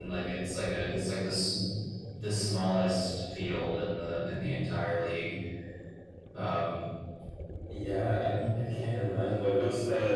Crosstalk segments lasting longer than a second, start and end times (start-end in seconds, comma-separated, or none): none